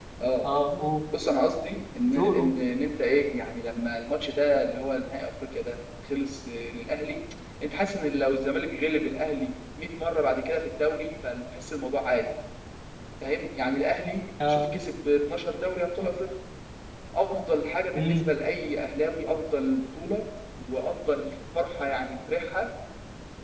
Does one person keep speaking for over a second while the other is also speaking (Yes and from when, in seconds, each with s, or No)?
No